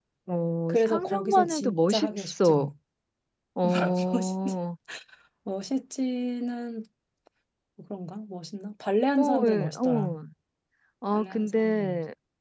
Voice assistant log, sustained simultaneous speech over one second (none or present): present